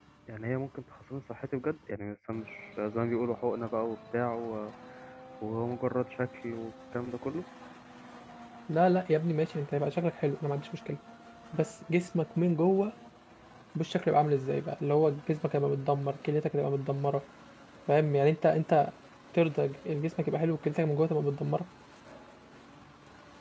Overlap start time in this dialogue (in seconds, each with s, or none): none